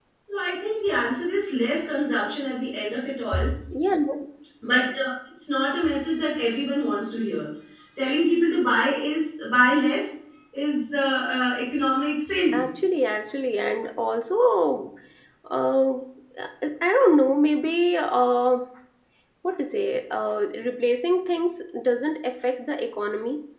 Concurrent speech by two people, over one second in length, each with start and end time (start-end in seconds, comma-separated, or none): none